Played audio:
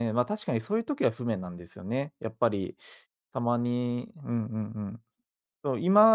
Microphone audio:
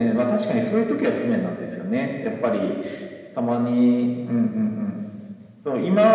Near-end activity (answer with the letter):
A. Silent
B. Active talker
A